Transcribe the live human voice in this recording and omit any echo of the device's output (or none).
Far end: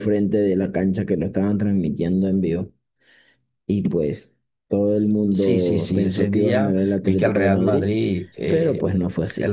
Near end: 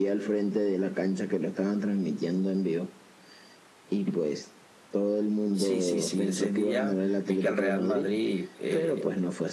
none